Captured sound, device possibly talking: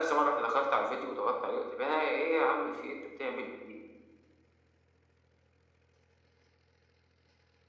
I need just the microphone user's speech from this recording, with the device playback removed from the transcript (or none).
none